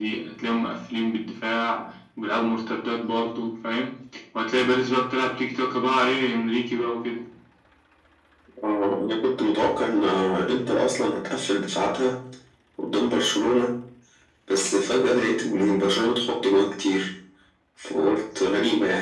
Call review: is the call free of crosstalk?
Yes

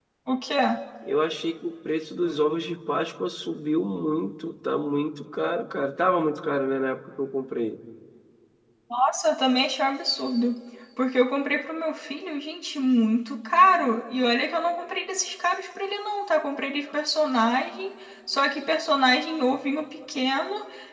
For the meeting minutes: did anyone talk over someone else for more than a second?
No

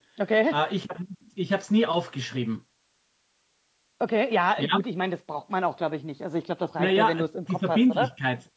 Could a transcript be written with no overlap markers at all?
No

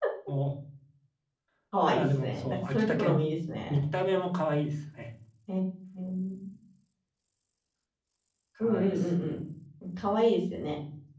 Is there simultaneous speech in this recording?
Yes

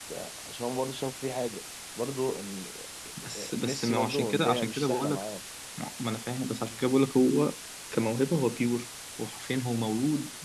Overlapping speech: Yes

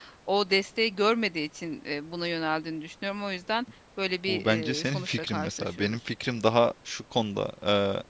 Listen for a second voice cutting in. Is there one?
Yes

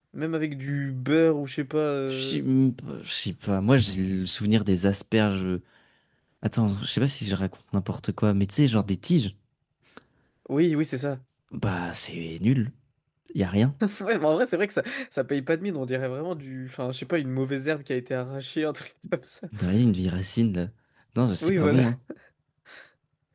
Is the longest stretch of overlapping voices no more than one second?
Yes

